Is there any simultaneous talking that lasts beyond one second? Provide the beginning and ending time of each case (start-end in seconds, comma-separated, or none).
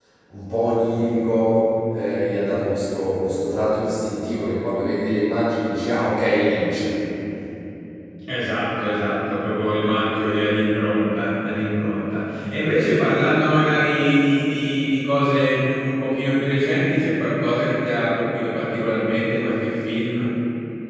none